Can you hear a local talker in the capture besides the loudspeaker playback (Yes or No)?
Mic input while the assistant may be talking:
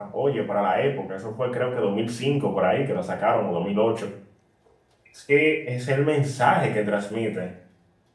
Yes